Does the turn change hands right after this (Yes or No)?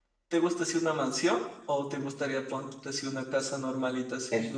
Yes